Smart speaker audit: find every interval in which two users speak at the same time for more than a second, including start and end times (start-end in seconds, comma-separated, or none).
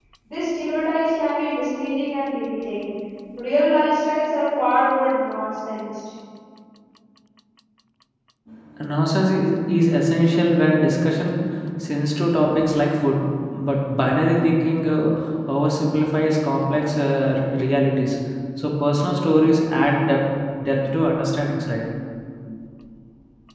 none